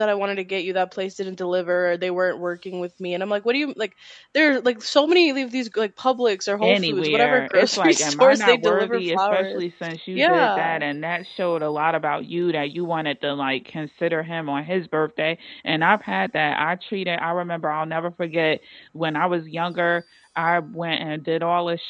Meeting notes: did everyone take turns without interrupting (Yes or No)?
No